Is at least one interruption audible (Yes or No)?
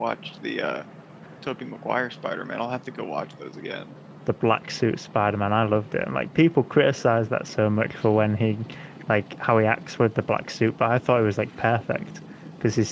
No